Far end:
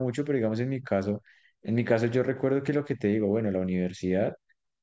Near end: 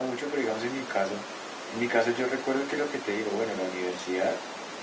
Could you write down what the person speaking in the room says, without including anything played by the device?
none

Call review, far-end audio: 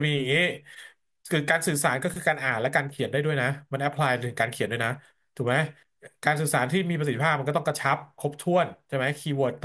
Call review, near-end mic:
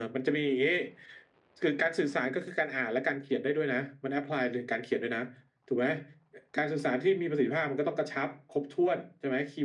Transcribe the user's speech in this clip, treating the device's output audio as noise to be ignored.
none

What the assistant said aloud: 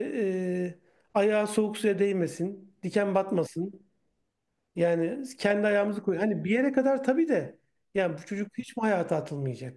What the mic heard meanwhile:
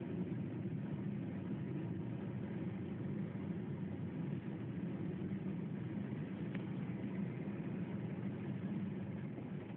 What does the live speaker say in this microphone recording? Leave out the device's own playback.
none

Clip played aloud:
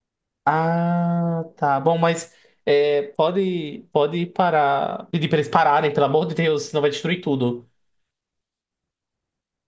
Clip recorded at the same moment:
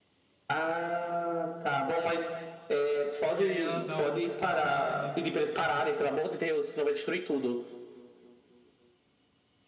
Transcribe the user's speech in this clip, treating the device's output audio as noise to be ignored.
E aí ela dá um, um chute na canela dele.

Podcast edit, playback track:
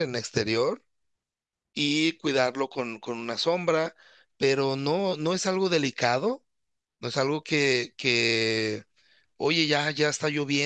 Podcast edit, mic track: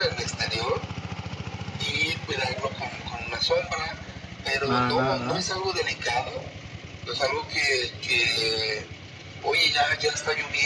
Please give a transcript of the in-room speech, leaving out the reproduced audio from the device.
Nada, nada, nada.

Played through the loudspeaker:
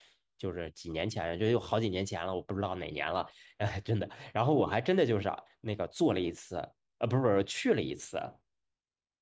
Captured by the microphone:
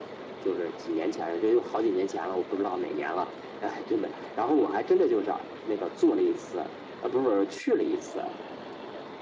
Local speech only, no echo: none

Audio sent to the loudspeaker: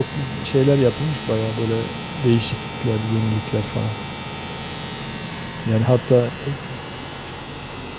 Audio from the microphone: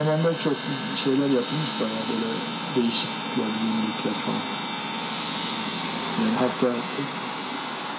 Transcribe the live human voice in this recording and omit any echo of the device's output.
none

